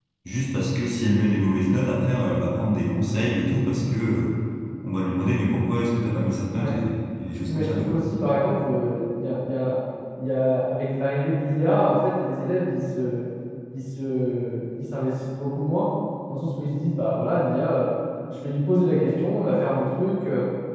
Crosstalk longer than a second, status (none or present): none